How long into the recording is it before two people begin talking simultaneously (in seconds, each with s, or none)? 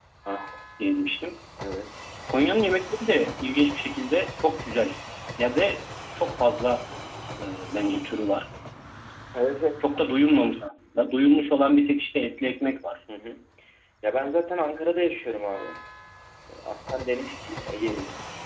none